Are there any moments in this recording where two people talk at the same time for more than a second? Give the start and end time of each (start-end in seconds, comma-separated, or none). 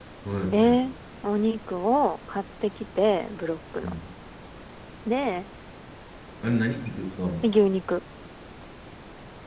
none